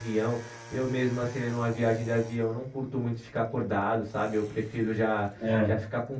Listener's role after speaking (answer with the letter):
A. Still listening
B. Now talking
A